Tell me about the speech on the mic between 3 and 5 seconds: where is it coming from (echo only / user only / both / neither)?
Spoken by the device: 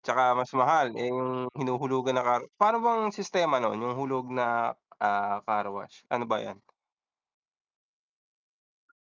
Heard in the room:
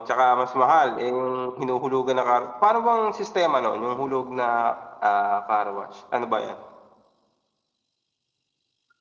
echo only